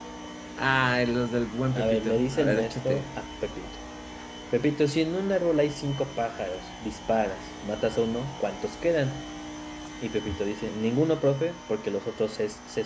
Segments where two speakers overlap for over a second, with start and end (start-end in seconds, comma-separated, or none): 1.7-3.1